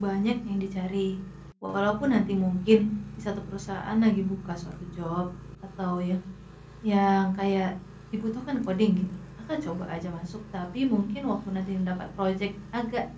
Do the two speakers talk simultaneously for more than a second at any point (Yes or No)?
No